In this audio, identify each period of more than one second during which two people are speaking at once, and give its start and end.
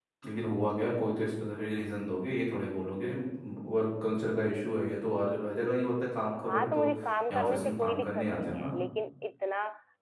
7.3-8.8

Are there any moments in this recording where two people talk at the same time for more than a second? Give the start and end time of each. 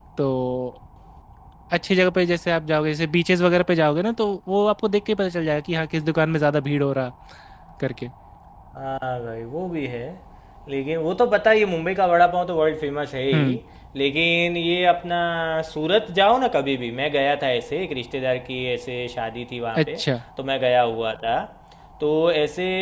none

